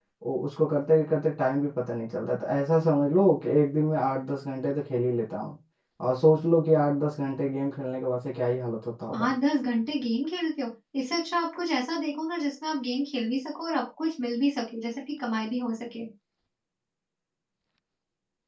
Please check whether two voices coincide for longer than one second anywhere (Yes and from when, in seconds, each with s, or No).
No